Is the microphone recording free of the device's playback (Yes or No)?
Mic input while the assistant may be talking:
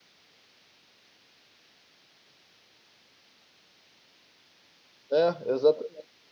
Yes